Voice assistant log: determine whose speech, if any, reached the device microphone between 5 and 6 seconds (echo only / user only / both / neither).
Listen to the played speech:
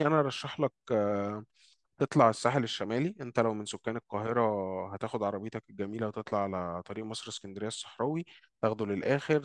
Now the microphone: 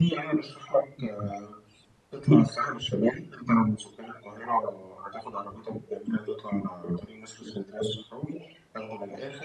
echo only